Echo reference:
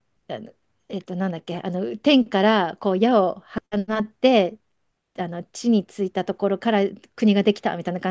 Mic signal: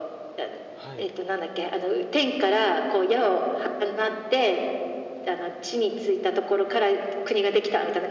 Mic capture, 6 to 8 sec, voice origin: echo only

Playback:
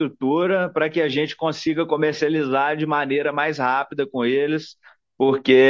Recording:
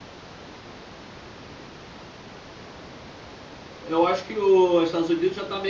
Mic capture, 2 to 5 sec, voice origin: user only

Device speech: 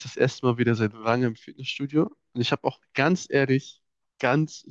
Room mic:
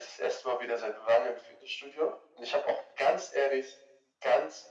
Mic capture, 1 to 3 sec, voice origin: echo only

